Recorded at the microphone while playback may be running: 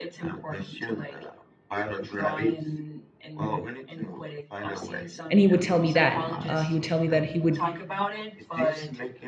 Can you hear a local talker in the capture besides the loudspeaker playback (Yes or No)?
Yes